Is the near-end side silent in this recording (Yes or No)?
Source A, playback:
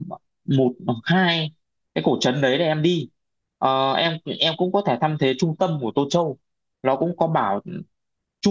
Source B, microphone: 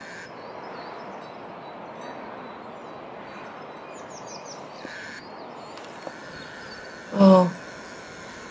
No